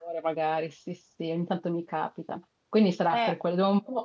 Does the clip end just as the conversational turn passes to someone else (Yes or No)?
No